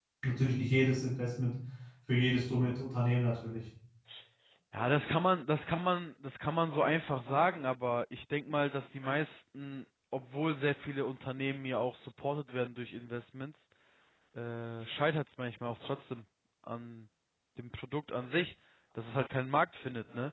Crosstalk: none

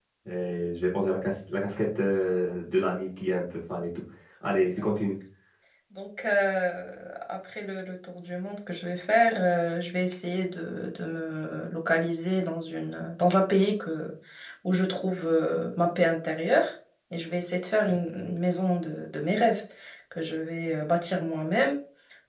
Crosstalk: none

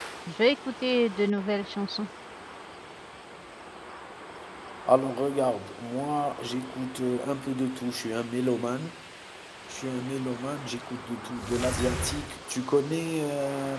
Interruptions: none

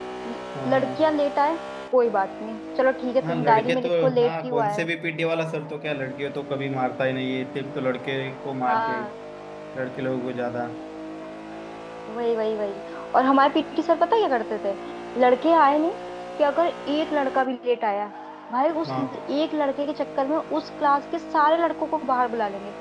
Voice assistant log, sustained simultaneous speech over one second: present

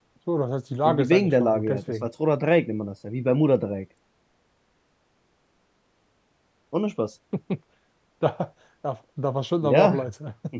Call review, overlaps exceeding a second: present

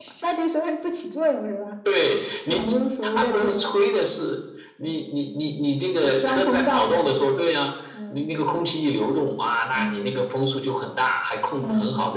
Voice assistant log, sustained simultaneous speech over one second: present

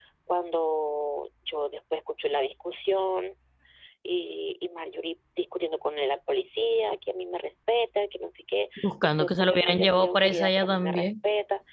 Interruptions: present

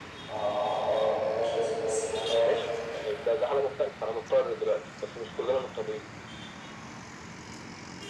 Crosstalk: none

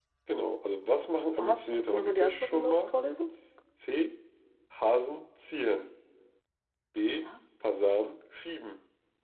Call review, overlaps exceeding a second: present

